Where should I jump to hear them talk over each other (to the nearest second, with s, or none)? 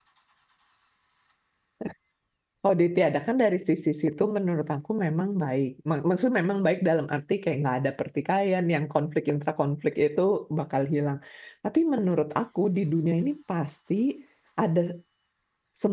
none